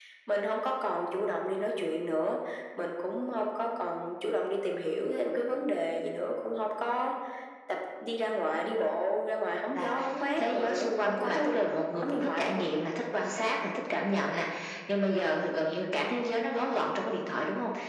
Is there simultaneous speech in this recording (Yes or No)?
Yes